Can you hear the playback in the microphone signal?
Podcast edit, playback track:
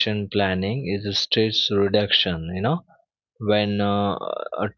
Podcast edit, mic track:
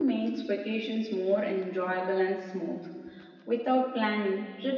No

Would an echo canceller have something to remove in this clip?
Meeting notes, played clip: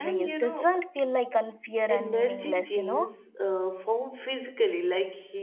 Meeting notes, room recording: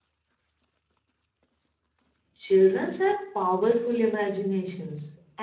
No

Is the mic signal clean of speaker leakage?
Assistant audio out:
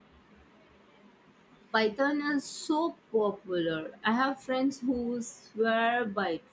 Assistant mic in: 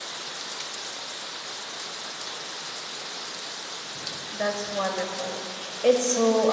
Yes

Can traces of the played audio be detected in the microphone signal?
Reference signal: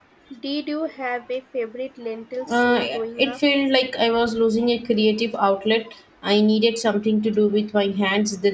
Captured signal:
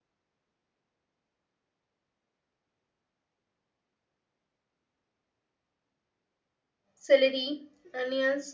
No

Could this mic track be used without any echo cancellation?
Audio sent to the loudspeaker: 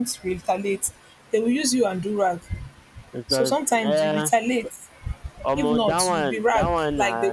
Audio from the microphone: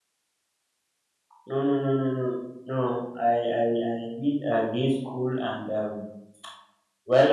Yes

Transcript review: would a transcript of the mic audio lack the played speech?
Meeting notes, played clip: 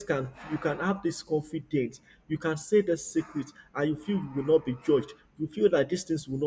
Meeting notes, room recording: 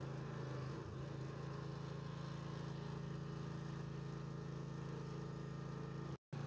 Yes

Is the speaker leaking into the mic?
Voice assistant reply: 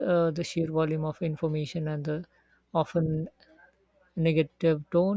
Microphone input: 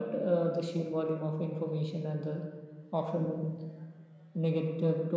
Yes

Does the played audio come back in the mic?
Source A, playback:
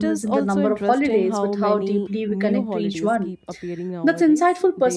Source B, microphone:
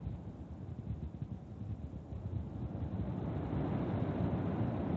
No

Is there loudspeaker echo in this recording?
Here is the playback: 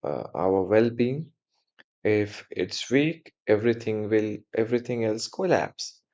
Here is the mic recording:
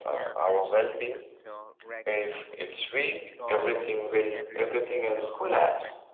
Yes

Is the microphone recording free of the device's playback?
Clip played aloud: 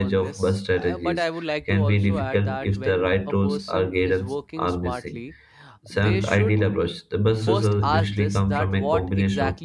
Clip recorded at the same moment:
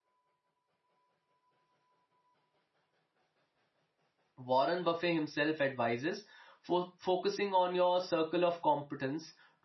Yes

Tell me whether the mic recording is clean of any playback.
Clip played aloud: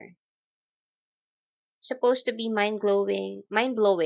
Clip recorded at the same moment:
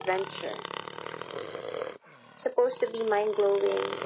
No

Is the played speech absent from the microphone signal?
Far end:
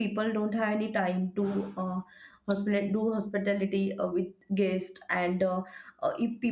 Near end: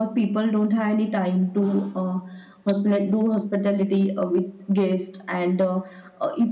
No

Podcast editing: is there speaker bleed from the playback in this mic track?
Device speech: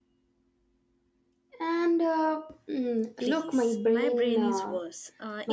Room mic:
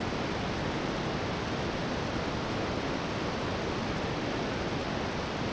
No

